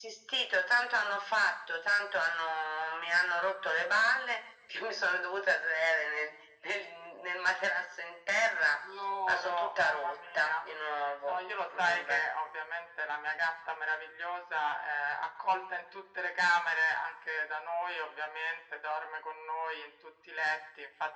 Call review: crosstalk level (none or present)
present